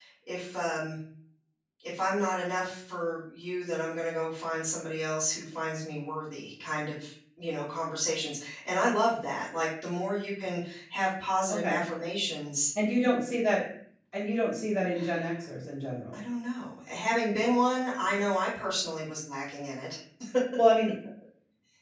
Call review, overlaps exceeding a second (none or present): none